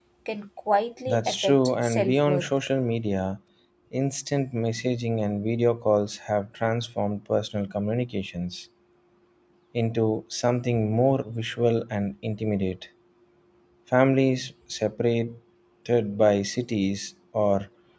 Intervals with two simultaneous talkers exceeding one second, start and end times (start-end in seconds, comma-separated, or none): 1.1-2.5